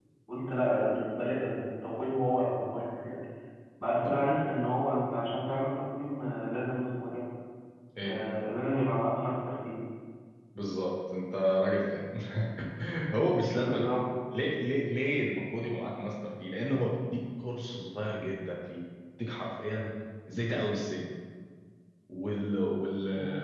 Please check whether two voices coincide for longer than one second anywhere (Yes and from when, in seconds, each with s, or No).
No